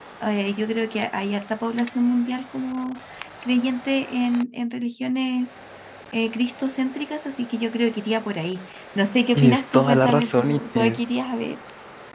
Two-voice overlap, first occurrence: 9.3 s

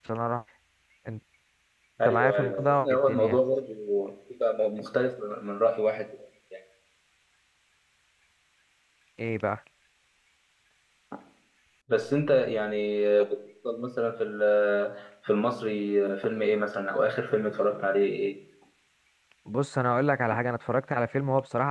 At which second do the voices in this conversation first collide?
2.1 s

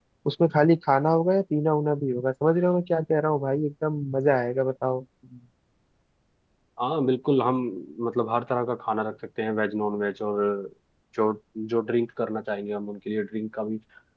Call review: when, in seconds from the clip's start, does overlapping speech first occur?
none

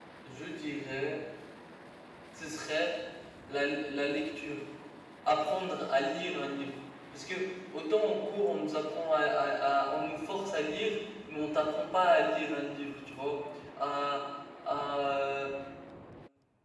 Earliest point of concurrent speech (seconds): none

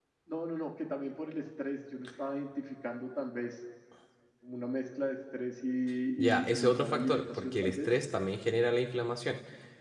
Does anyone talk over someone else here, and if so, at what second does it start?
6.2 s

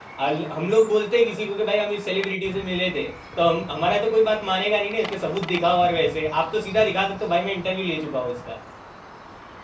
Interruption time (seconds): none

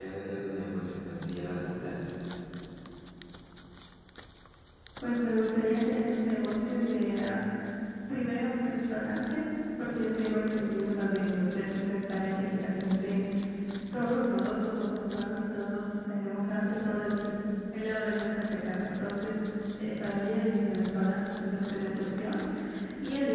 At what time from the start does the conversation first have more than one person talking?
none

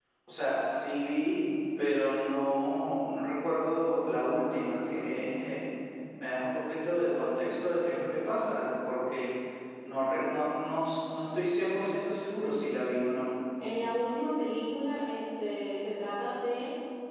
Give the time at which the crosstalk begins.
none

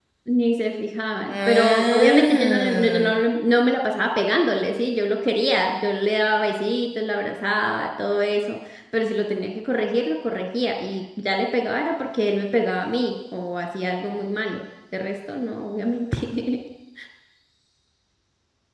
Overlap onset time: 1.3 s

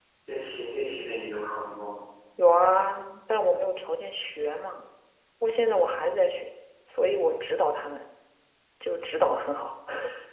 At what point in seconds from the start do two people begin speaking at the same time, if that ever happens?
none

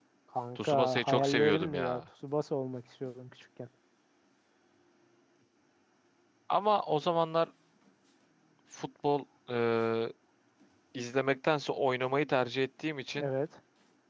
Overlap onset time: 0.6 s

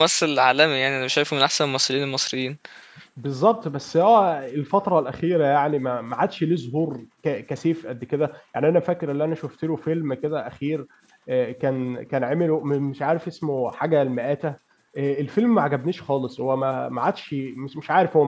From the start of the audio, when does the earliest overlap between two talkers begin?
none

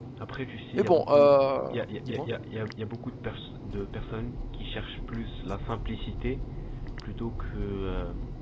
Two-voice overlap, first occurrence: 0.8 s

